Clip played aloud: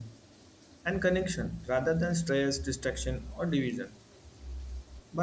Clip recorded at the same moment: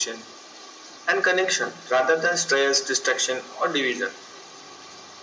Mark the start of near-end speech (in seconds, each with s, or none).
none